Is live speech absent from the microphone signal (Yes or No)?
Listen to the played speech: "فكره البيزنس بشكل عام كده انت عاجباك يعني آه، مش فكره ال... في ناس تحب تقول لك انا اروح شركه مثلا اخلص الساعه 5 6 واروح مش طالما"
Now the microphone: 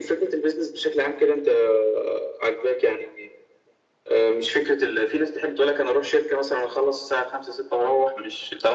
Yes